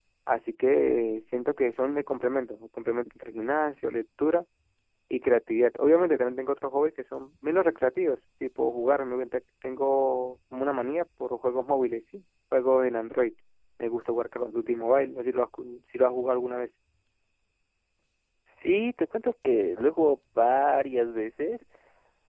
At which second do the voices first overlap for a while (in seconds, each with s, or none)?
none